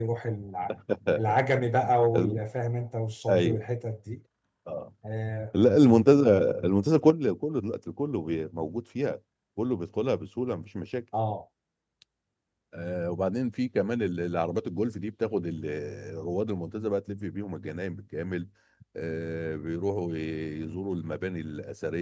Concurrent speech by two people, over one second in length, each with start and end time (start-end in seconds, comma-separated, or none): none